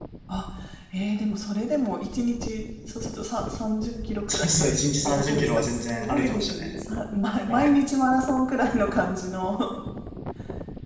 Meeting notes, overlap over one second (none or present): present